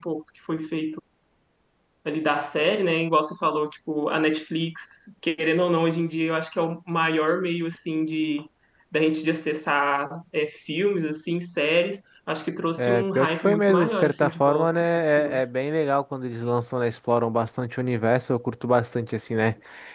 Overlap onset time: 12.8 s

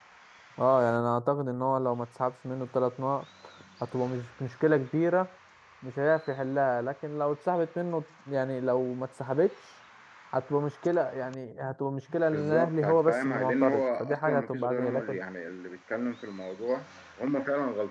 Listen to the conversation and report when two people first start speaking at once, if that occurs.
12.3 s

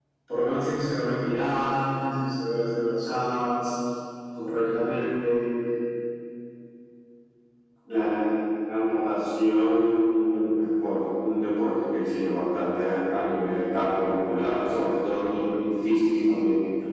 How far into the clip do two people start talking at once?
none

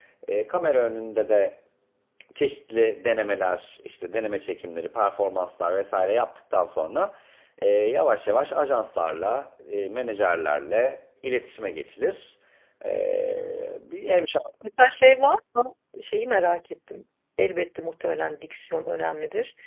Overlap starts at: none

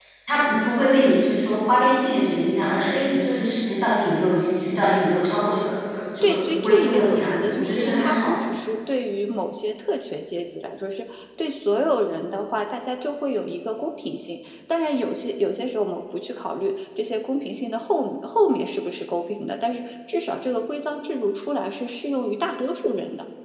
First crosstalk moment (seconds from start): 6.2 s

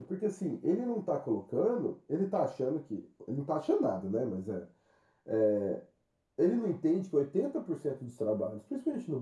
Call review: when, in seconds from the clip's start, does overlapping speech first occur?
none

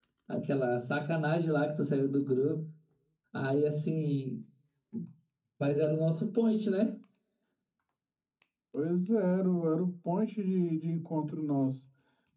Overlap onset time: none

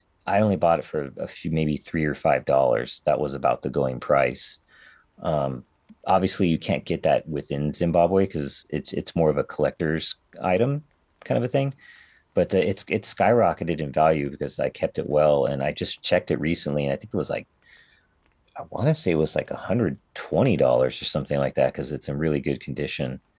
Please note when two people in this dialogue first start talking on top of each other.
none

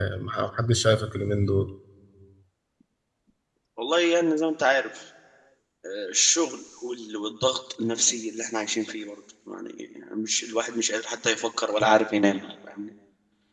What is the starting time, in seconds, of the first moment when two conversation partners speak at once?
none

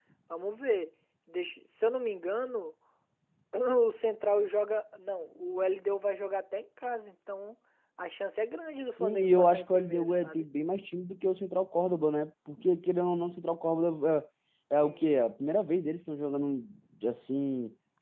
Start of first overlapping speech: 9.0 s

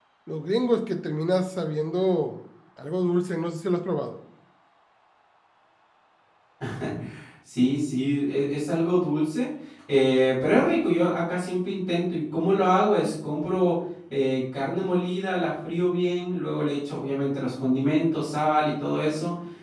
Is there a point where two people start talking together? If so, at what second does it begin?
none

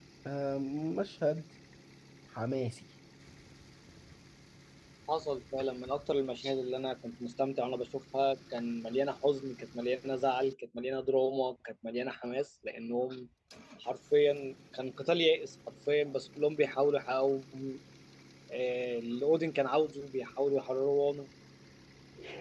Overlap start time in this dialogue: none

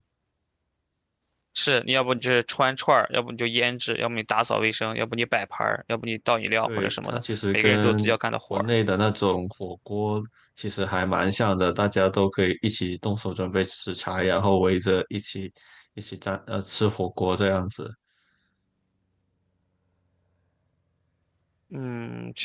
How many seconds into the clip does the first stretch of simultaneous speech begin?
6.7 s

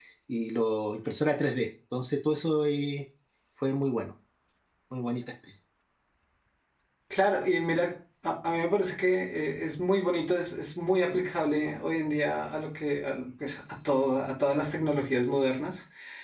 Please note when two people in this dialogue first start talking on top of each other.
none

